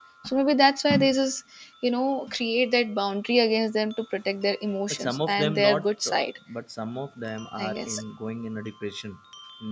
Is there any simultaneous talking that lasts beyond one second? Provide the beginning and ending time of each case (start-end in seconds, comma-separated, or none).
4.9-6.2